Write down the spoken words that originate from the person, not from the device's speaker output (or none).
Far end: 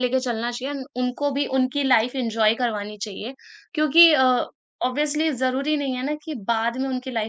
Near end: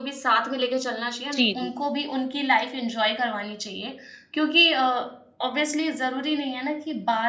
जी, जी।